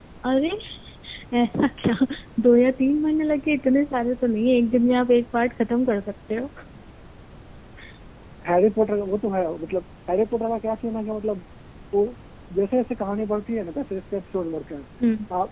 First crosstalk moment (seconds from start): none

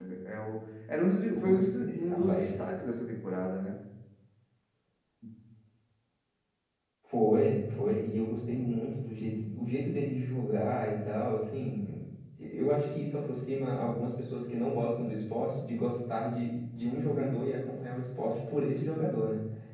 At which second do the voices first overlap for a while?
1 s

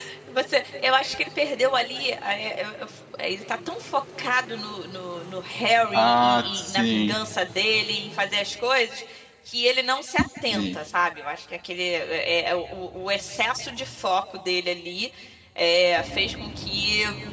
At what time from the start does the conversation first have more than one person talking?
6 s

